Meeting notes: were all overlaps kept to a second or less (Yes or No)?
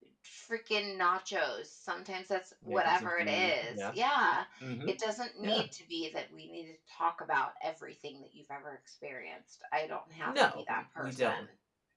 No